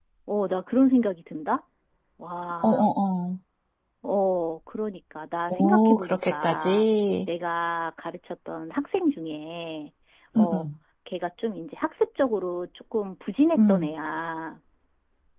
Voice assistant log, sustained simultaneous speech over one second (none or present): present